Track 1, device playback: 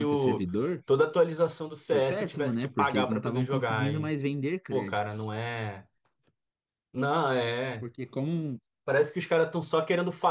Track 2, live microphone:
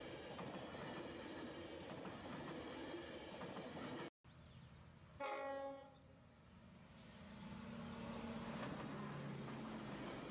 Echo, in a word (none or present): none